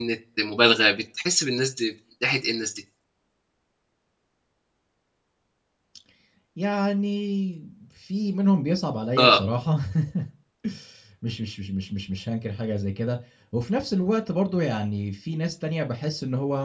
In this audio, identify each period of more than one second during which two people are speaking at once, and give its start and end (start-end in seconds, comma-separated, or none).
none